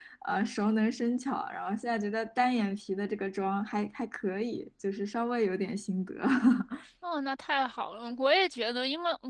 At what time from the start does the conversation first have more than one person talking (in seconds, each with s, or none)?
none